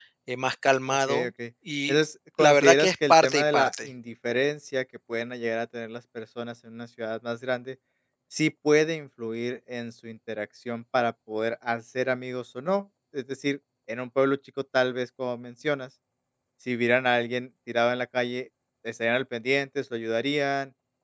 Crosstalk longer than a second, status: present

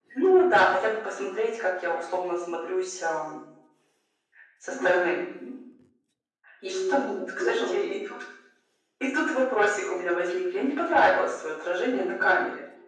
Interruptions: present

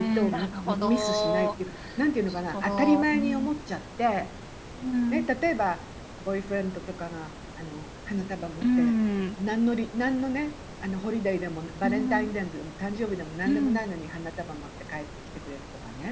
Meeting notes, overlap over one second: present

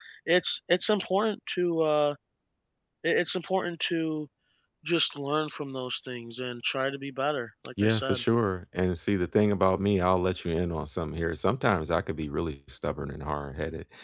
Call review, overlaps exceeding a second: none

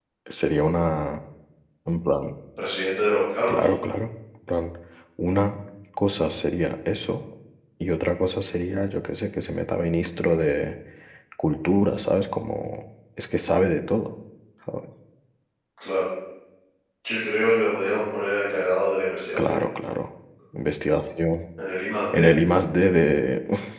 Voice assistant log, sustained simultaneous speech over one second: none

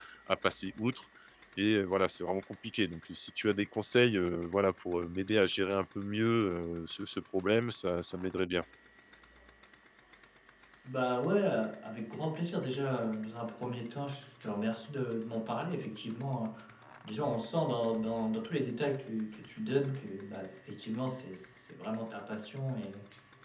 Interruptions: none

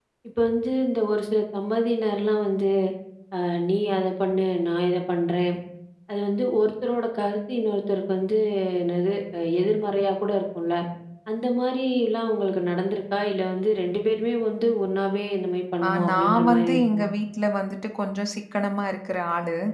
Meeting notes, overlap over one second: present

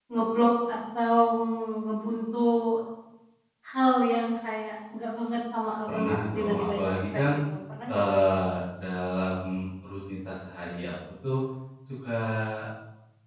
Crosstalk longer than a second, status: present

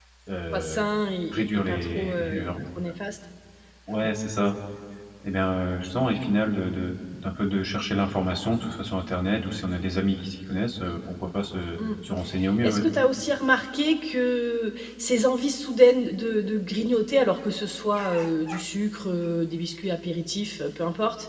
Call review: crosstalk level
present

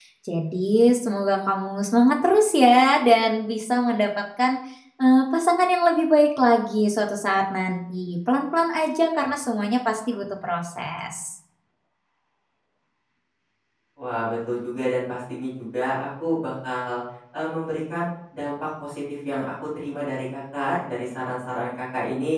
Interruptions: none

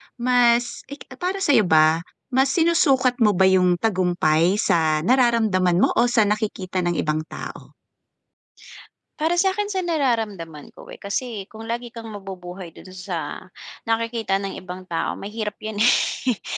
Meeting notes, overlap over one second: none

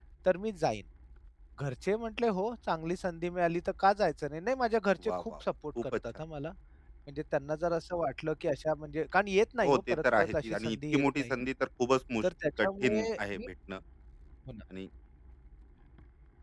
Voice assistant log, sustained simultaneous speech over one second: present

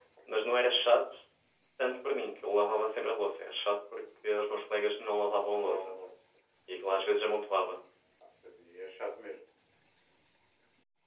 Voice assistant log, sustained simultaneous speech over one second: none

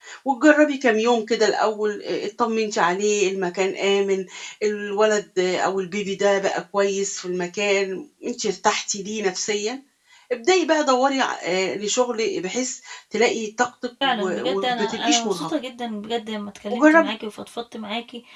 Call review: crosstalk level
present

